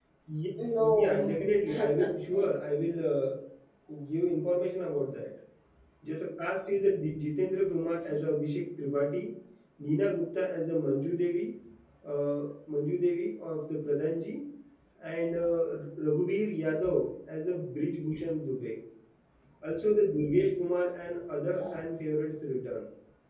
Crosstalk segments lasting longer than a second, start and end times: 0.8-2.9

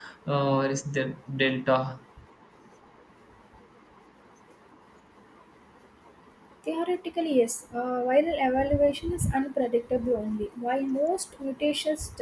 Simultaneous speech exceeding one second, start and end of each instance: none

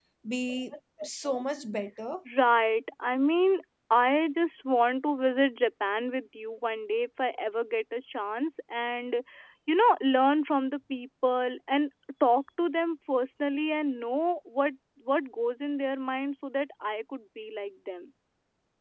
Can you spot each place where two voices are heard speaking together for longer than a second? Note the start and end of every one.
none

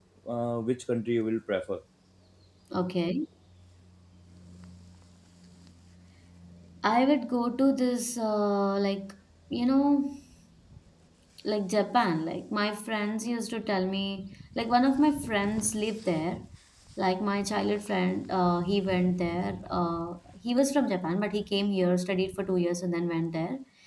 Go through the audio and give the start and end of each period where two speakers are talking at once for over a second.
none

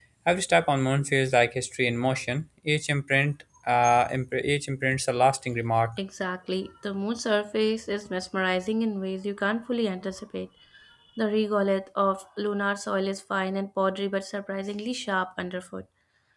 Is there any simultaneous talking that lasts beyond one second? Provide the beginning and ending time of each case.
none

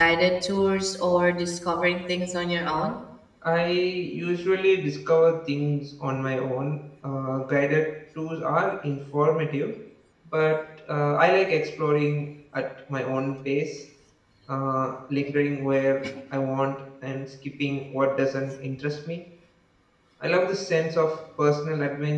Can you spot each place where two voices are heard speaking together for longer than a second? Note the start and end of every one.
none

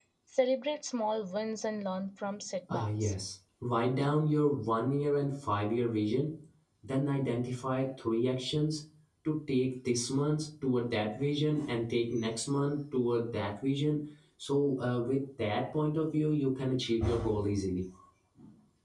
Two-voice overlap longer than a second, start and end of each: none

